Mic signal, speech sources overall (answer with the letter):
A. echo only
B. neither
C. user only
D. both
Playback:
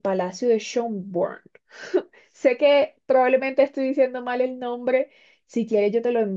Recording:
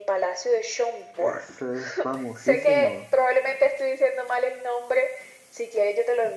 D